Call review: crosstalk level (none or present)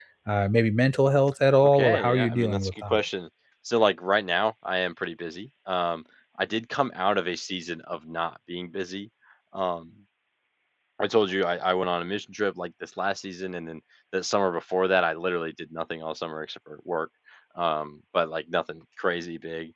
present